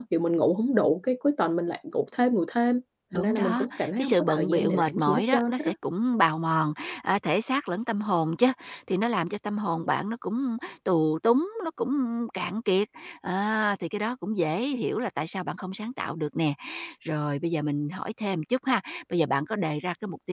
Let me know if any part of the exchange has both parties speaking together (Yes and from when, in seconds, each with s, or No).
Yes, from 3.1 s